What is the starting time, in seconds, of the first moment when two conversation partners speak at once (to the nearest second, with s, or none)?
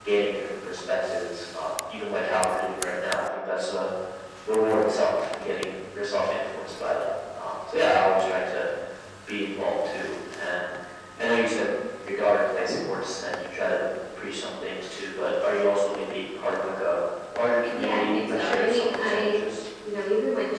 18 s